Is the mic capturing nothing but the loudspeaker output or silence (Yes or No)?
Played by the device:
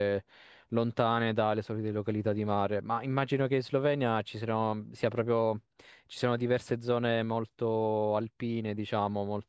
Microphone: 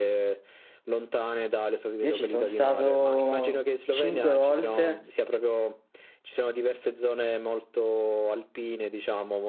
No